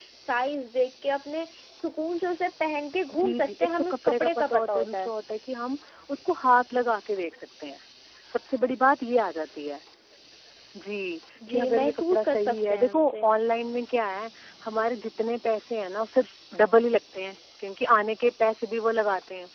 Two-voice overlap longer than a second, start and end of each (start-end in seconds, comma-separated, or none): 3.2-5.1, 11.5-13.2